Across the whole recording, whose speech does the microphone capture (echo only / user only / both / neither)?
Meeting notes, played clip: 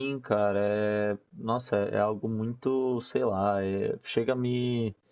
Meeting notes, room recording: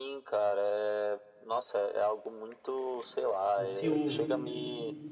both